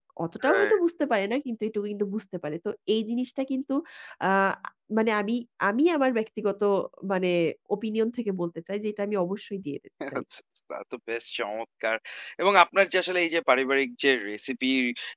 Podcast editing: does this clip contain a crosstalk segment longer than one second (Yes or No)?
No